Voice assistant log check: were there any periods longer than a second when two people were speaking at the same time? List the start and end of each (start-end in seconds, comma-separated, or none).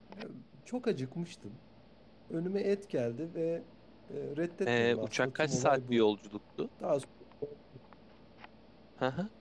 4.7-6.0